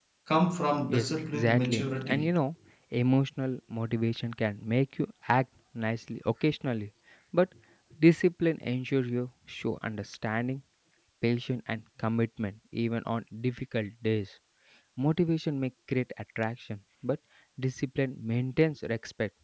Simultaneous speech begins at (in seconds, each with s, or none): 0.9 s